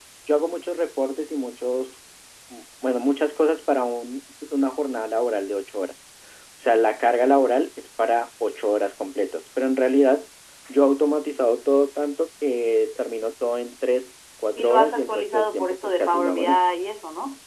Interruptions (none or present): present